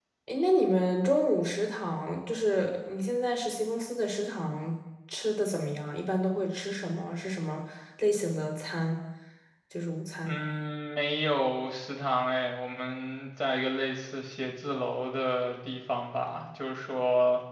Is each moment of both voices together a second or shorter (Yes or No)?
Yes